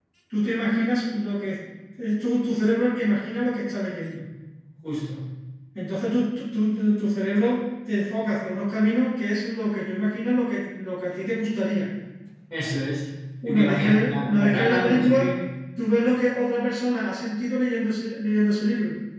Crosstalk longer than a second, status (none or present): present